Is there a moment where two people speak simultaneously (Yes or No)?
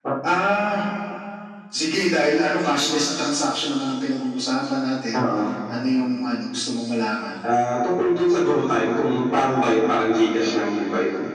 No